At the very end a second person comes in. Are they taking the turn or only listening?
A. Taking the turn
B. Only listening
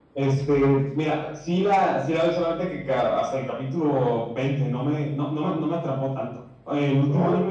B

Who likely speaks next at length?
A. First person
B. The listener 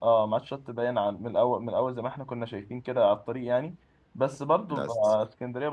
A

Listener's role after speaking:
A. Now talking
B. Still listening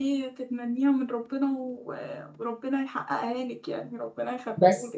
A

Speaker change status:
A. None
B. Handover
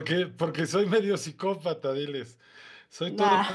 A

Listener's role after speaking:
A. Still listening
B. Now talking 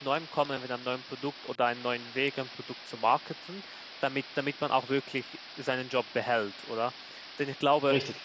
A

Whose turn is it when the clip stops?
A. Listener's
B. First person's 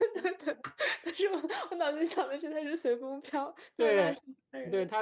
A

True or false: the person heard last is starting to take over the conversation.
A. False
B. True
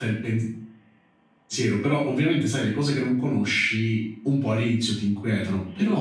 A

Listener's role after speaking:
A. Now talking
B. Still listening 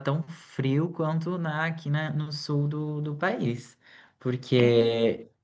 B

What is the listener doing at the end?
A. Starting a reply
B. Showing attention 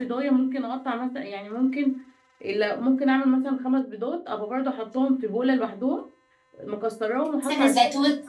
B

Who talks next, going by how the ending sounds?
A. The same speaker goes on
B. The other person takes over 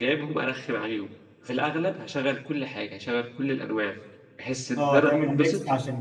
B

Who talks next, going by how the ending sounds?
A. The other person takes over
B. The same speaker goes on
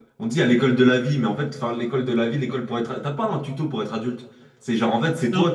B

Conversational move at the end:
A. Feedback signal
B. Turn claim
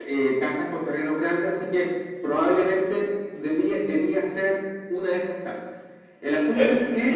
B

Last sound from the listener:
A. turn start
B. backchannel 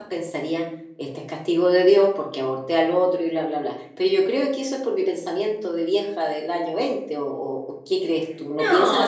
A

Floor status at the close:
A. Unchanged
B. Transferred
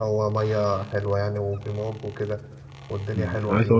B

